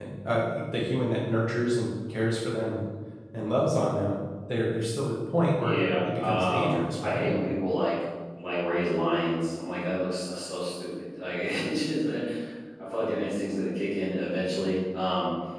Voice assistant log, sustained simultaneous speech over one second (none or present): present